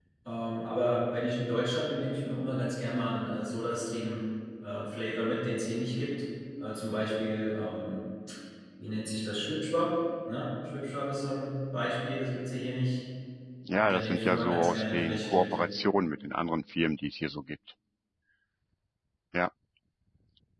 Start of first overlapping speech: 14 s

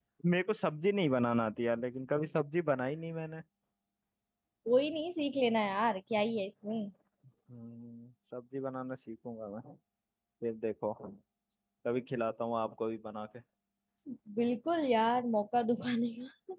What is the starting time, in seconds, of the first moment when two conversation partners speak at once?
none

